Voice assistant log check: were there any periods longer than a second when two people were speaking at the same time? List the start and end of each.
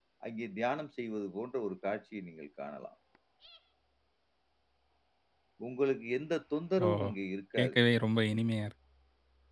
none

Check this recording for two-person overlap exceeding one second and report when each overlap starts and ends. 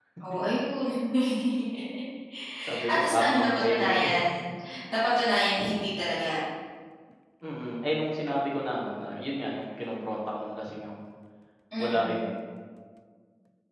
2.9-4.3

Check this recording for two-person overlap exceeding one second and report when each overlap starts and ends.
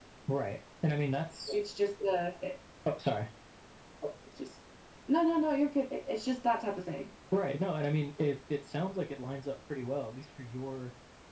none

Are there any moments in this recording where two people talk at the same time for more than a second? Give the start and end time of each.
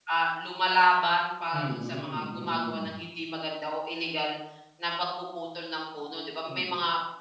1.5-3.0

